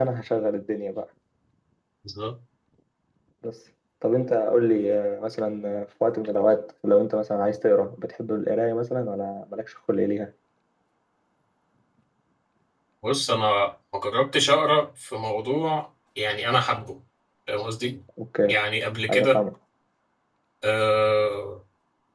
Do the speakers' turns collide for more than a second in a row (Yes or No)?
No